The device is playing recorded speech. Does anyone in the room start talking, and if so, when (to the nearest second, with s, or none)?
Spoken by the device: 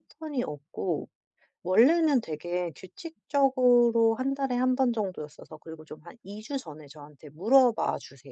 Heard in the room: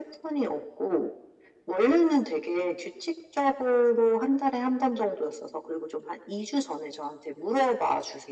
none